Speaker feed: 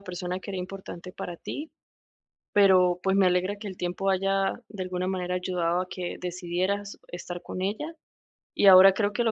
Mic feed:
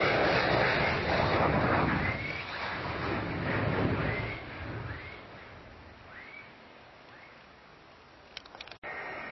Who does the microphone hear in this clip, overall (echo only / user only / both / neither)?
neither